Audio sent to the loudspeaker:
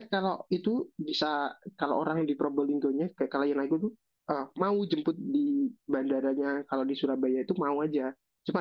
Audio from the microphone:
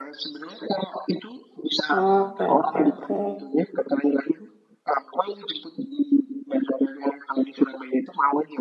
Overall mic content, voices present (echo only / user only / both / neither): both